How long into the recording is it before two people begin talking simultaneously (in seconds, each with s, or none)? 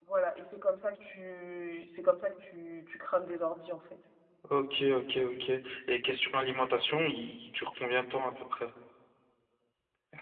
none